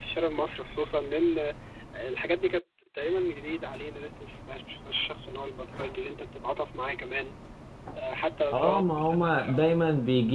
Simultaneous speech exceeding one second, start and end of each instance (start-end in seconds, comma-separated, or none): 8.5-9.8